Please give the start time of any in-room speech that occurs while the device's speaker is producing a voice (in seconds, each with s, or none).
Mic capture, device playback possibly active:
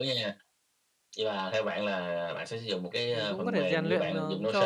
3.1 s